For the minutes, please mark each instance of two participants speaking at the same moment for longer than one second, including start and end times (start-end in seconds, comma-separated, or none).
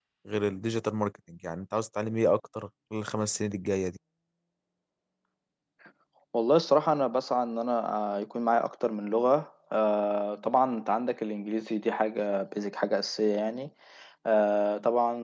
none